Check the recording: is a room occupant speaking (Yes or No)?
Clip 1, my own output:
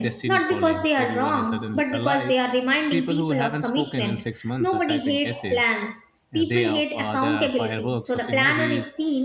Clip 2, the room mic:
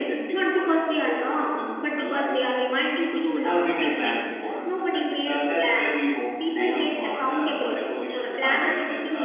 Yes